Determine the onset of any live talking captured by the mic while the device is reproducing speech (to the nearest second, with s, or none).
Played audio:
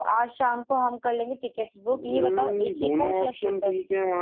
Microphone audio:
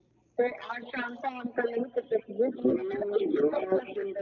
none